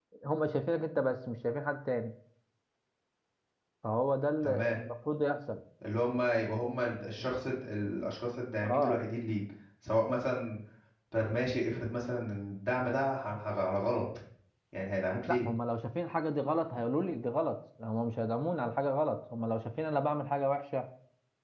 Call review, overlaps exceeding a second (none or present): none